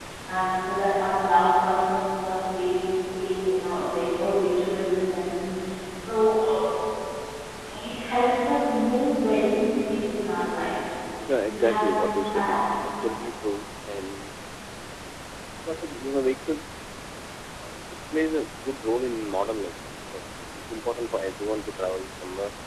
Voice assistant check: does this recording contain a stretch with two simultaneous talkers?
Yes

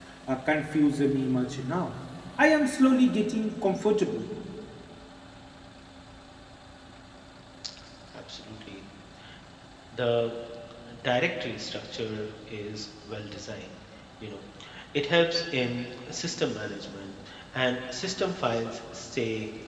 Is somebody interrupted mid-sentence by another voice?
No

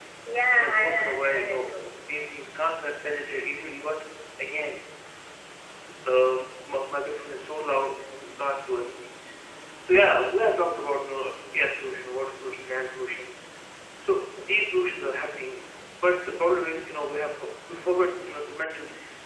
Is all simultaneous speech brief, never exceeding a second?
No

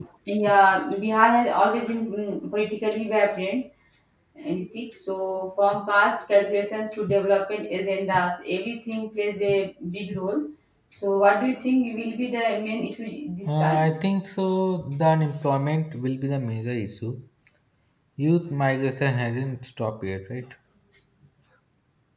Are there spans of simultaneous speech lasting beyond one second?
No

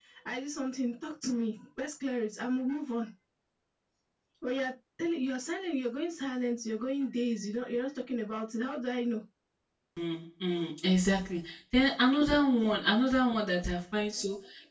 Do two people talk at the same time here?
No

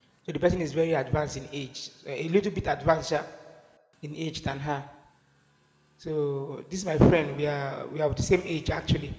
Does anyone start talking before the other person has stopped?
No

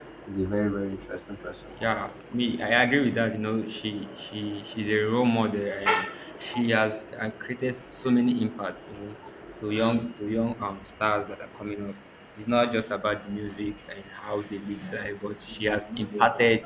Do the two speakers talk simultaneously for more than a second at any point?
No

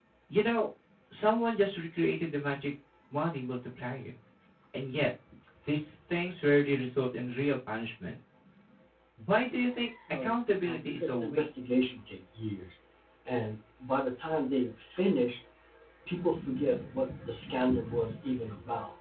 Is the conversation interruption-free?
No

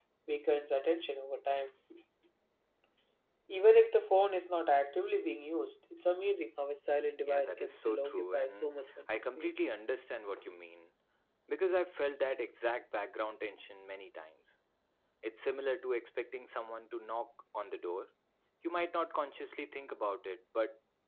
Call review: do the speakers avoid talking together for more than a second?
No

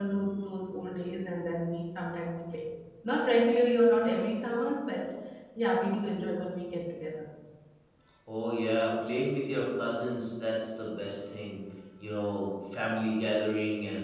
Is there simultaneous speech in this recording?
No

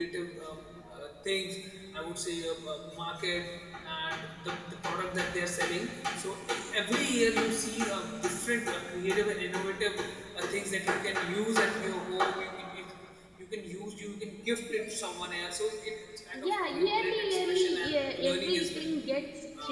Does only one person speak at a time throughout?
No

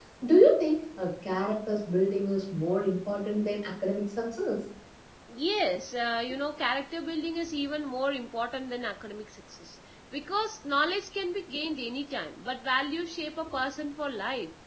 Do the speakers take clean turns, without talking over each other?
Yes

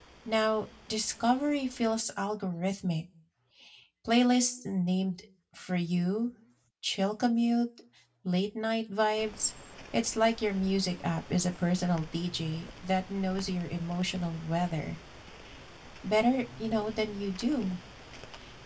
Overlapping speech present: No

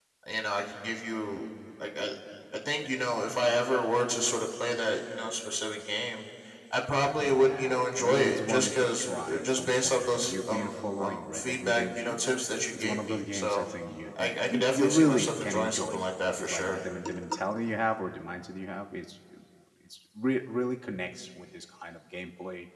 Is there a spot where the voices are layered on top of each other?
Yes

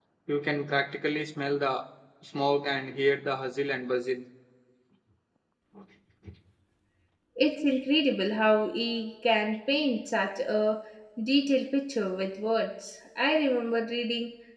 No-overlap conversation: Yes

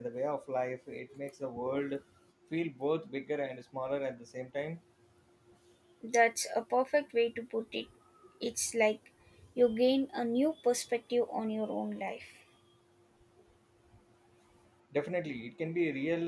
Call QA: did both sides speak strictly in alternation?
Yes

